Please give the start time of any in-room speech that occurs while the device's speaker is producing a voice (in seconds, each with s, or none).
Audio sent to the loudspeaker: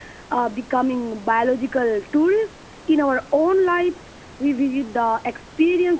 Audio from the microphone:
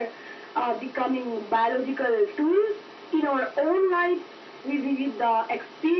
none